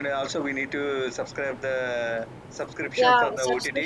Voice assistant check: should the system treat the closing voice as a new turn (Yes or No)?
Yes